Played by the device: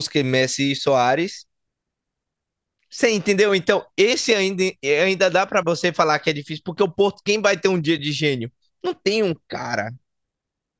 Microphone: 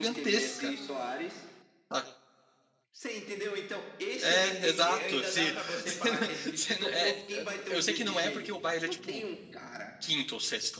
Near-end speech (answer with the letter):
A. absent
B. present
B